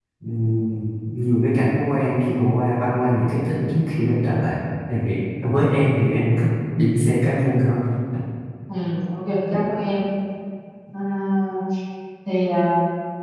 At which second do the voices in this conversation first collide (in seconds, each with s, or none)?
none